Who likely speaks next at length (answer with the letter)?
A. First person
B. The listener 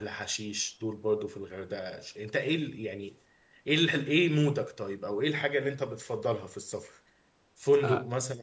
A